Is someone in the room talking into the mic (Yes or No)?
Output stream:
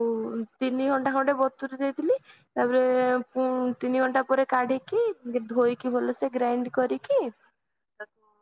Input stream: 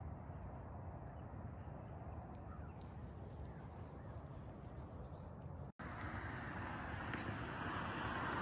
No